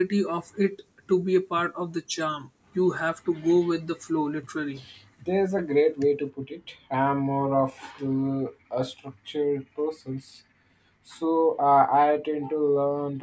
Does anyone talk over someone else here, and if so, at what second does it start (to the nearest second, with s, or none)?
none